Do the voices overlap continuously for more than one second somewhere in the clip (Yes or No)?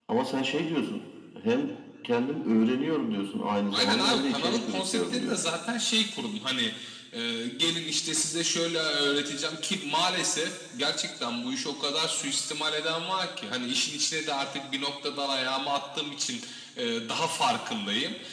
Yes